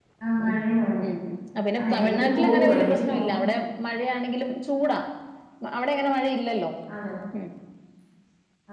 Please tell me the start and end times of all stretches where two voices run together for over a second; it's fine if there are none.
1.8-3.3

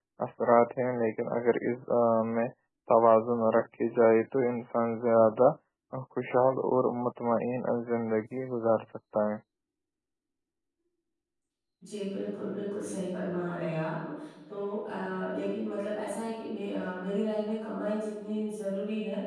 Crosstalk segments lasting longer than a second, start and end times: none

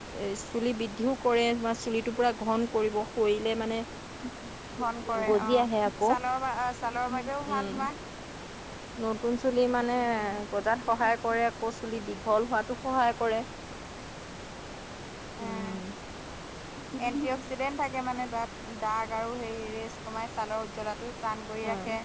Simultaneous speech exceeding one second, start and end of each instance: none

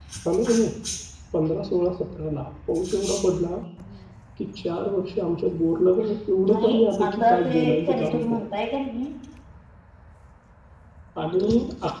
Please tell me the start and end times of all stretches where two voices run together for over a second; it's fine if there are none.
6.5-8.4

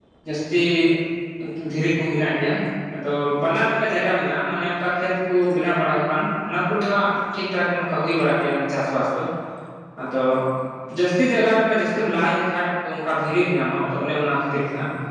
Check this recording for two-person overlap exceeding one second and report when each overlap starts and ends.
none

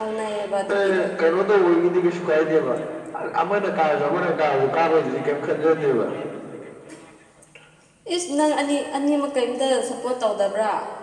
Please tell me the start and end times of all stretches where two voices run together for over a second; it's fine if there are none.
none

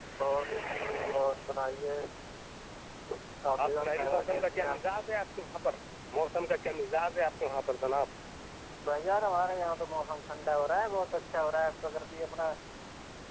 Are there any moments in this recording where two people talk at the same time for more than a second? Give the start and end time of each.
3.6-5.0

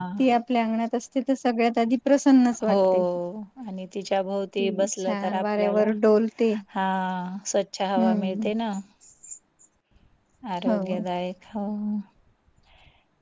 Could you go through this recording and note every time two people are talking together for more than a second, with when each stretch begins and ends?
4.6-5.9

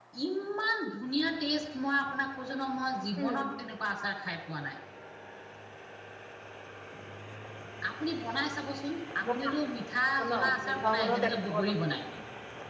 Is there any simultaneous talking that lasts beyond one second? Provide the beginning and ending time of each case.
10.2-11.7

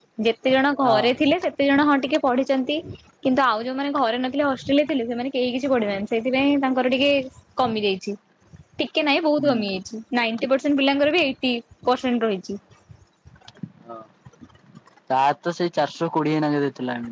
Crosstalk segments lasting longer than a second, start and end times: none

